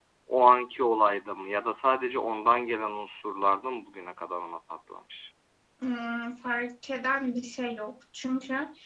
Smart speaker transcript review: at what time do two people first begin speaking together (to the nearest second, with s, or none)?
none